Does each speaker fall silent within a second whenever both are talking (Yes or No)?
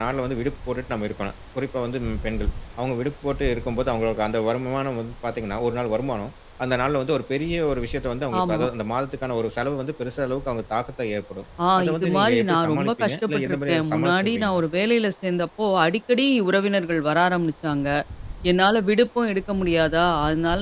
No